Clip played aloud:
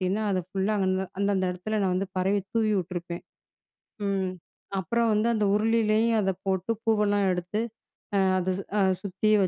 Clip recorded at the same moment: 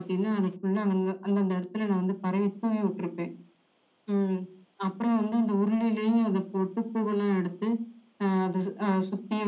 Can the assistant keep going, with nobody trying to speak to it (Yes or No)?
Yes